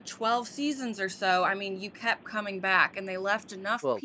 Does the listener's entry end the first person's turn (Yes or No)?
No